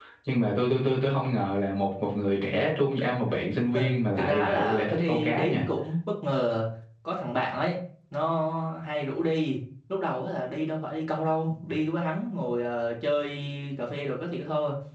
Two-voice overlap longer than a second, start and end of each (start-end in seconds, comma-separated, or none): 3.7-5.6